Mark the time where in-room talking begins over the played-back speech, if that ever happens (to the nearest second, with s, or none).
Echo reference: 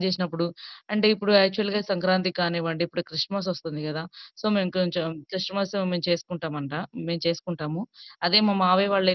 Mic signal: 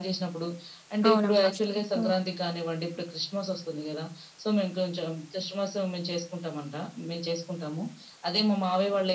1 s